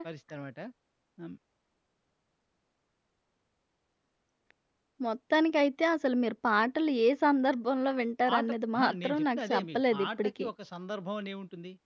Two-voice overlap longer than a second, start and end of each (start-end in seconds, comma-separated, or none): 8.3-10.5